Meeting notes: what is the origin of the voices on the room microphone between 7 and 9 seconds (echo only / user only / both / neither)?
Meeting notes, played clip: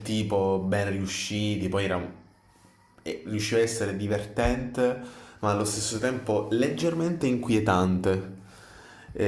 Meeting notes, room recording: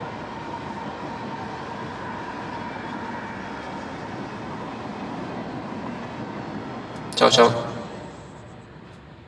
user only